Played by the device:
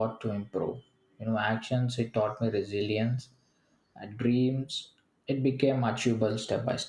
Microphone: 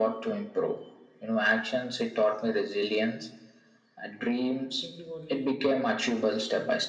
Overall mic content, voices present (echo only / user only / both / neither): both